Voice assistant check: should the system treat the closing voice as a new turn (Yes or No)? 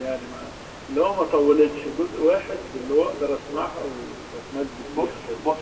Yes